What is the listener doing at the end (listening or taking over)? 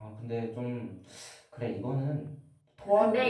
taking over